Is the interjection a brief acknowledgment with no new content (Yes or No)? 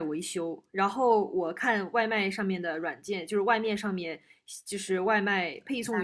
Yes